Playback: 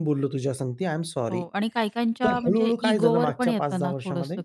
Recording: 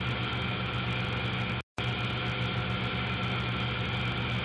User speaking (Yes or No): No